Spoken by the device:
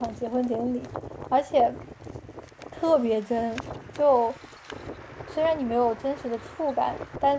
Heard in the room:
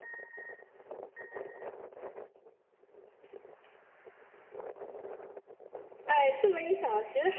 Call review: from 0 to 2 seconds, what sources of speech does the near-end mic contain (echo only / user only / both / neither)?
neither